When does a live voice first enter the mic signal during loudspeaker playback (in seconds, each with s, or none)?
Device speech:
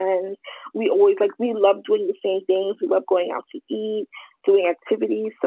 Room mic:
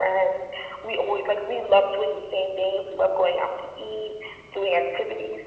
none